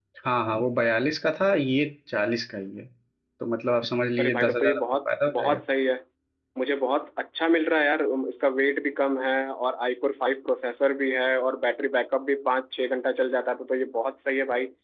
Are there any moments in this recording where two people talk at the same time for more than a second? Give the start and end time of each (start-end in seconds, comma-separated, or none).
4.2-5.6